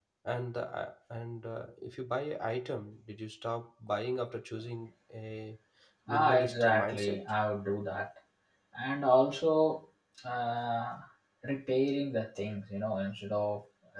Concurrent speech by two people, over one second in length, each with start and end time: 6.1-7.3

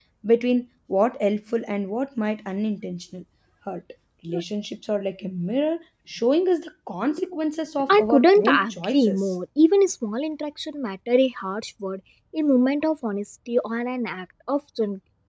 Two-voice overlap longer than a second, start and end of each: 7.9-9.3

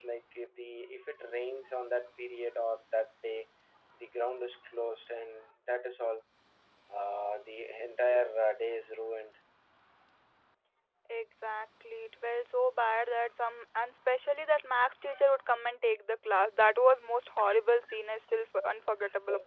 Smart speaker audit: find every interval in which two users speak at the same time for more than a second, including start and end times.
none

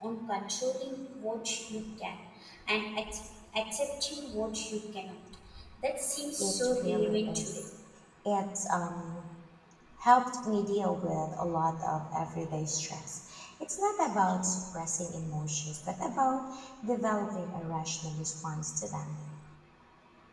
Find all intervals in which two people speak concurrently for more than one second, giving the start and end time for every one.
6.4-7.6

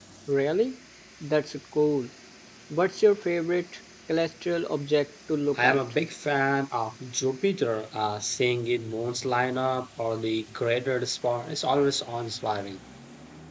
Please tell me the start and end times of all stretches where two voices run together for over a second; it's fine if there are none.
none

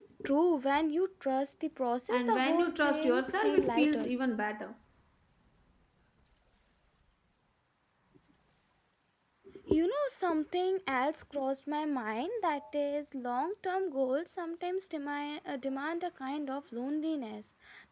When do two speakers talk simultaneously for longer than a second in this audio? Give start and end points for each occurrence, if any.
2.1-4.1

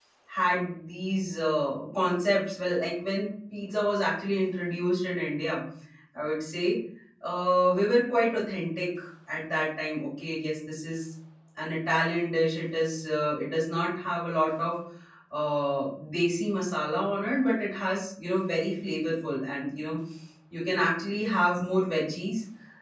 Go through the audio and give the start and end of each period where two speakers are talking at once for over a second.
none

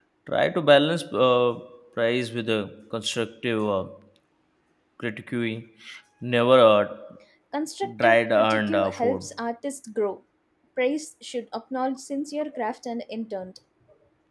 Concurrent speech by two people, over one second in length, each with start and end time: 8.0-9.2

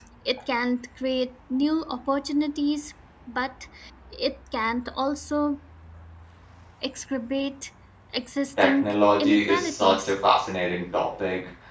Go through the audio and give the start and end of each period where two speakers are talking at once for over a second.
8.6-10.1

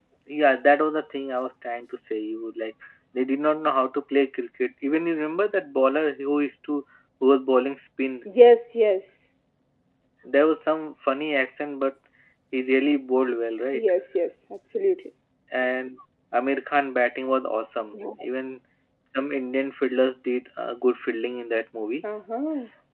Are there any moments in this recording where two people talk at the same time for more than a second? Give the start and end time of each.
none

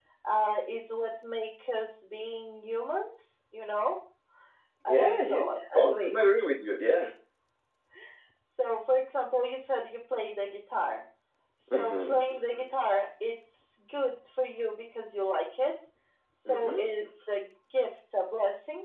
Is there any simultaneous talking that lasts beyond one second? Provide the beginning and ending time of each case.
4.9-6.3

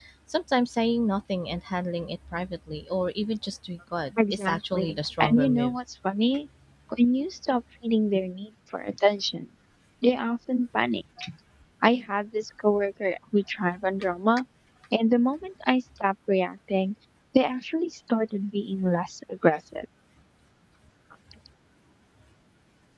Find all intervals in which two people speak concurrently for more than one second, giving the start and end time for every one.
4.3-5.8

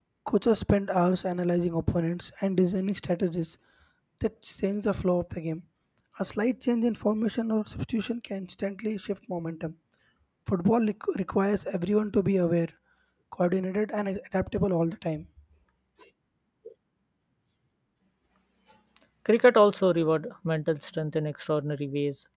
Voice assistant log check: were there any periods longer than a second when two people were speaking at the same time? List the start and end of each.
none

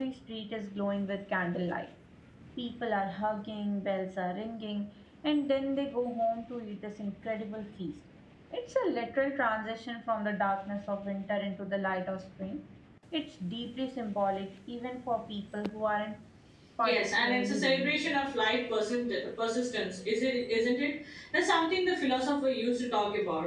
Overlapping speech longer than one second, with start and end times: 16.8-18.2

